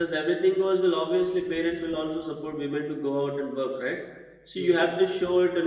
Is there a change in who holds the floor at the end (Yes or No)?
No